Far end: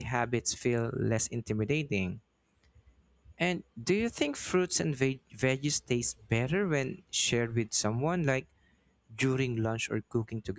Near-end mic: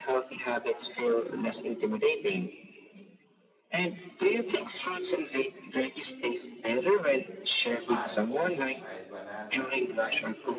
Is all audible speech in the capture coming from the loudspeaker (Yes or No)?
No